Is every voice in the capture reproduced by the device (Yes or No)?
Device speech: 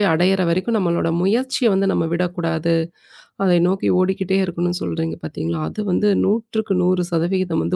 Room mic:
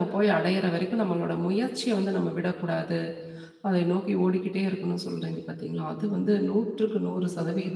Yes